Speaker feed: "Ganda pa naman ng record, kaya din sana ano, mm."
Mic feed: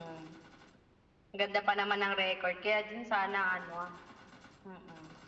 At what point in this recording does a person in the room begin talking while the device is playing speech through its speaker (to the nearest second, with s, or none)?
none